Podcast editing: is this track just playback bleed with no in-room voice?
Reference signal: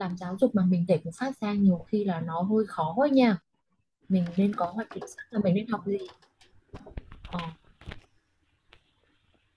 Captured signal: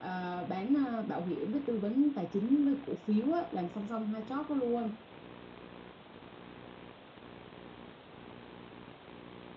No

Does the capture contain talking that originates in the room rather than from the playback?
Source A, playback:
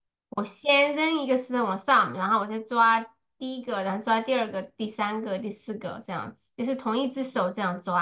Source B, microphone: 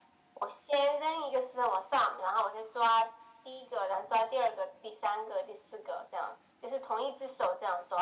No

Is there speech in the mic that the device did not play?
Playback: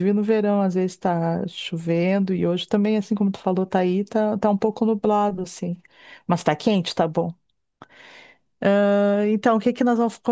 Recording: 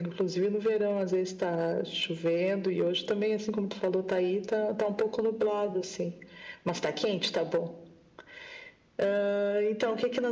No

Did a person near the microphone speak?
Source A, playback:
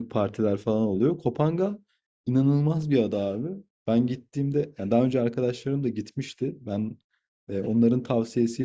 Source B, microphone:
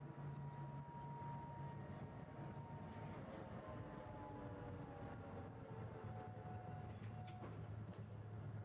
No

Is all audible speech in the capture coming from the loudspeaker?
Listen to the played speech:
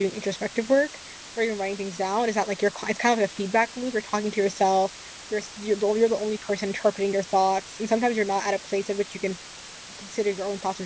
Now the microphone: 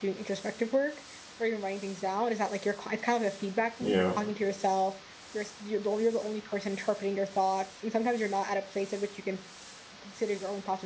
No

